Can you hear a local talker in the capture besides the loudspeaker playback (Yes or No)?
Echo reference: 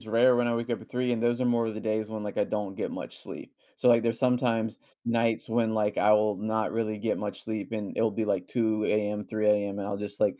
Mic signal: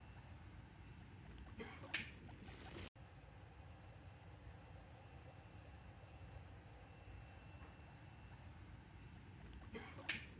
No